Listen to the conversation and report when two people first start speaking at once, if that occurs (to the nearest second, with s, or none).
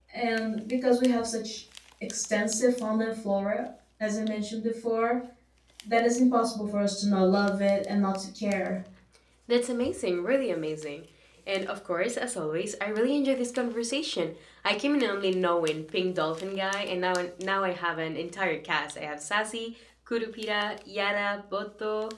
none